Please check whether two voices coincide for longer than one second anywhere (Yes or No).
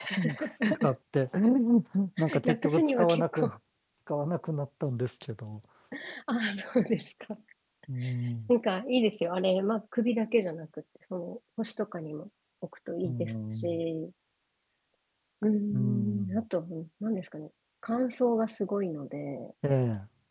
Yes